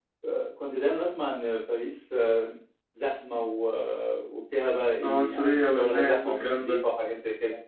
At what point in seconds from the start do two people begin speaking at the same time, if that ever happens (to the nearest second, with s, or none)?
5 s